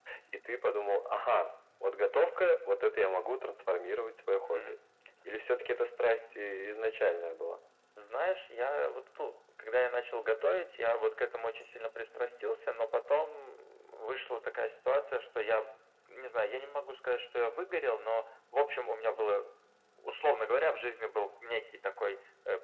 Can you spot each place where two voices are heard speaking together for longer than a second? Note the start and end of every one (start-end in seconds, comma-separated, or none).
none